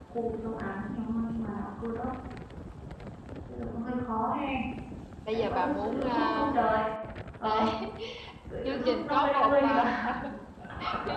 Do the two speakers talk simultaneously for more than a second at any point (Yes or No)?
Yes